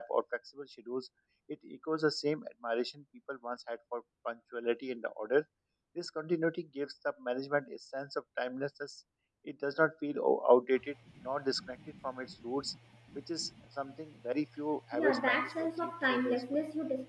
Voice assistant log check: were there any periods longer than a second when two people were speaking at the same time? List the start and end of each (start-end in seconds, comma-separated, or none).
14.9-16.4